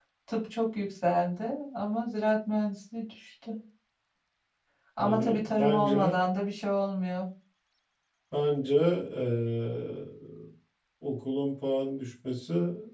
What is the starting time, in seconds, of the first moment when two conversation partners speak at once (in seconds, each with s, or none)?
5.0 s